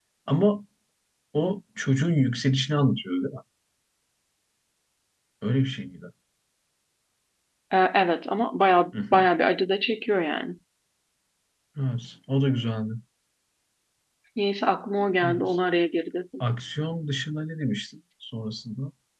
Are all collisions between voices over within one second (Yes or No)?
Yes